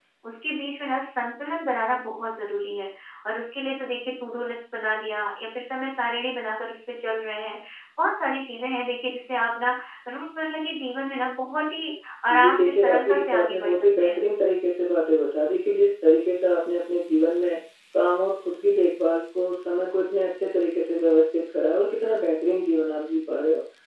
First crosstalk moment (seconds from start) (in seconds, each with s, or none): 12.3 s